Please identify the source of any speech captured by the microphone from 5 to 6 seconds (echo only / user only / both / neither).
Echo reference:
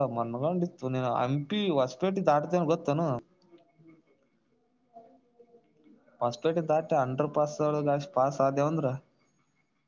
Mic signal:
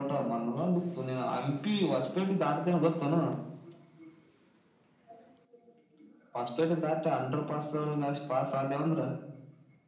neither